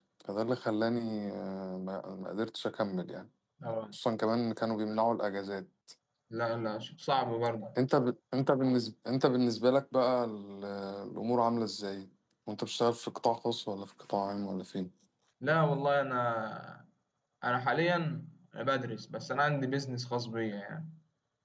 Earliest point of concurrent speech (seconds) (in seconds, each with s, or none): none